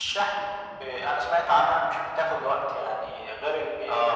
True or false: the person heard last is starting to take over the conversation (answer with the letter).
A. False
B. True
B